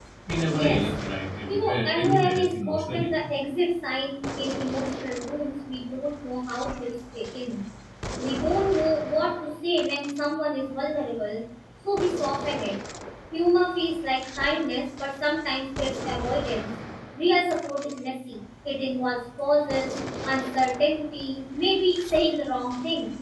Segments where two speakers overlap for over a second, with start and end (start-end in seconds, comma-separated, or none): 1.5-3.1